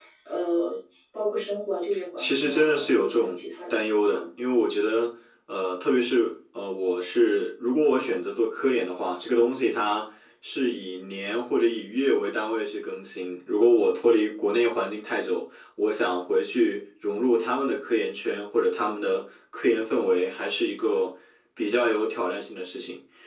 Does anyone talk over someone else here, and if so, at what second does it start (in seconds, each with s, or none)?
2.2 s